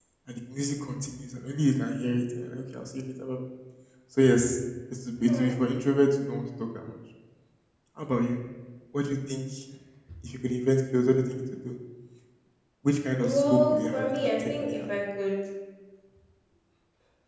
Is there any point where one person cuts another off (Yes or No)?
Yes